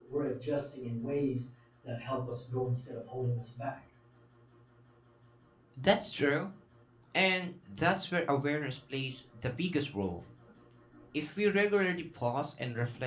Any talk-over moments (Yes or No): No